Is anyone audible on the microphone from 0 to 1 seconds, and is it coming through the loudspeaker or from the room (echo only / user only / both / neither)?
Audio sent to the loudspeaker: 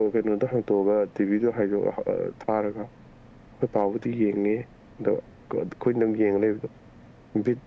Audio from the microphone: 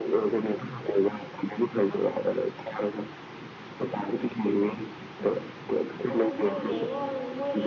echo only